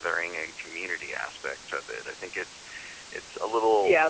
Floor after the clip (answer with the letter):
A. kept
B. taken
B